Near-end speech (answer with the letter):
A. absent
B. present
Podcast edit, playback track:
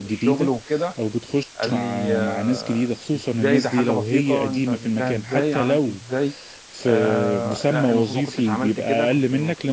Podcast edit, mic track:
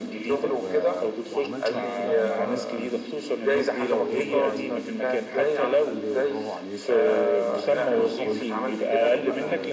B